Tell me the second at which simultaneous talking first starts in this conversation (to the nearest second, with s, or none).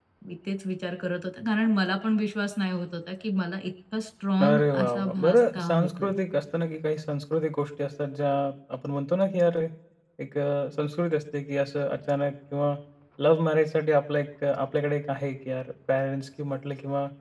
4 s